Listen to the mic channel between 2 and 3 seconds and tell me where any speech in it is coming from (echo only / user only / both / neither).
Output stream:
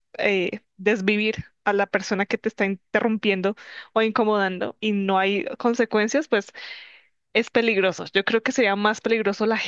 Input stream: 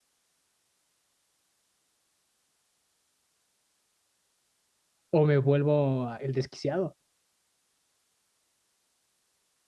neither